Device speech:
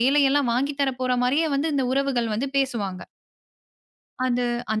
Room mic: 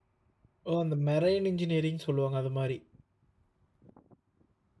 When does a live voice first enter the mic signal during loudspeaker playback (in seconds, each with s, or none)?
0.7 s